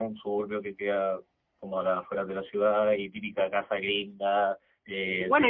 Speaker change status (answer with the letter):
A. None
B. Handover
B